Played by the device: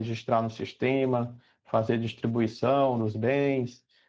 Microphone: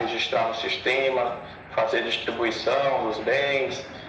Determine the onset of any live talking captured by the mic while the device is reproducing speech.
none

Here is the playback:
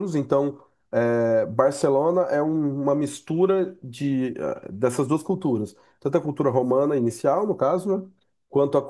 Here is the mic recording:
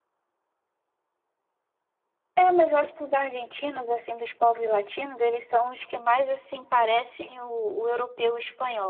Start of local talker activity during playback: 2.4 s

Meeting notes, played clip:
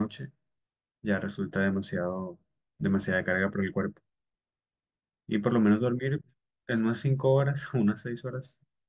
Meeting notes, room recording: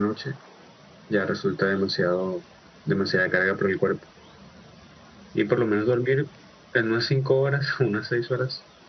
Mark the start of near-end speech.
none

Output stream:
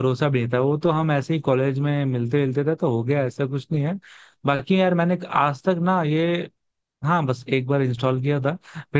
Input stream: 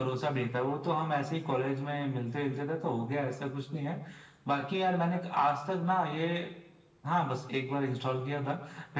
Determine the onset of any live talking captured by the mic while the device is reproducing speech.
none

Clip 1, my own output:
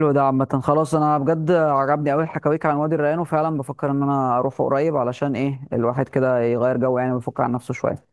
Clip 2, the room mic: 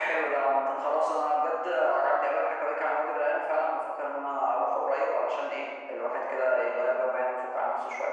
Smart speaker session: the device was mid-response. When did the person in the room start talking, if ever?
none

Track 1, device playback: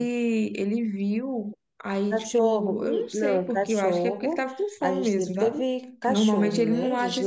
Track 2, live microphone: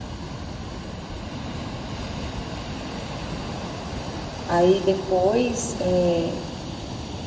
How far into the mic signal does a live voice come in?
4.5 s

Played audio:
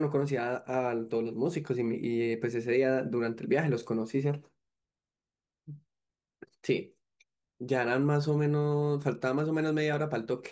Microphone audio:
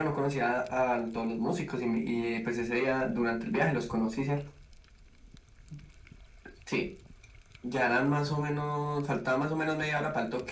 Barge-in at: none

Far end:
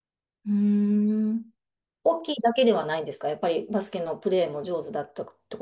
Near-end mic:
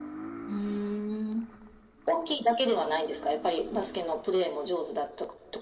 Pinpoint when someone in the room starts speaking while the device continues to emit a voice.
none

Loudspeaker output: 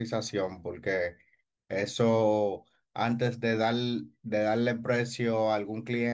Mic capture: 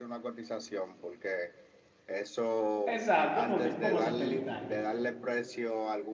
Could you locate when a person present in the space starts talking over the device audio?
2.8 s

